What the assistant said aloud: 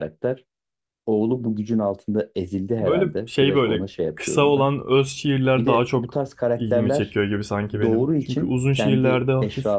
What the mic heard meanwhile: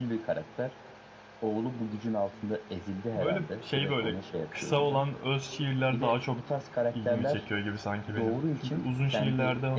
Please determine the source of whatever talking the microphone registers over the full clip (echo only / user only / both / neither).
echo only